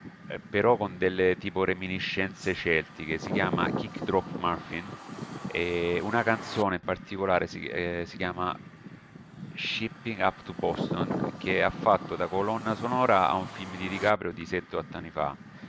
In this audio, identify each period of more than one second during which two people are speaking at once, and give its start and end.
none

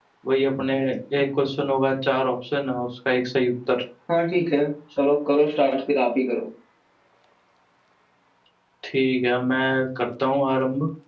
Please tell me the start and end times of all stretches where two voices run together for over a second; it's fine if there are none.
none

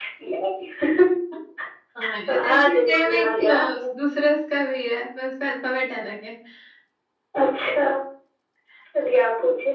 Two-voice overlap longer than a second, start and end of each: 2.3-3.6

